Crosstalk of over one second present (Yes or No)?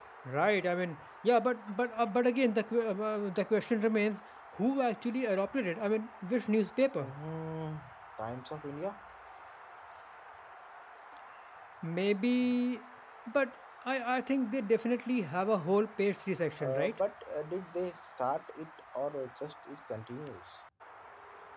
No